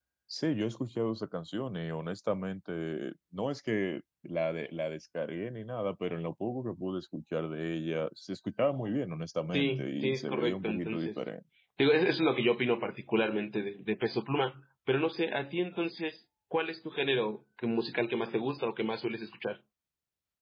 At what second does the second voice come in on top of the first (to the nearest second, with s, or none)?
10 s